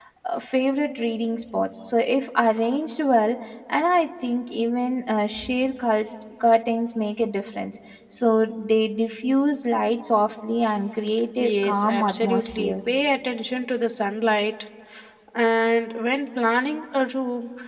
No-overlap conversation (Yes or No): No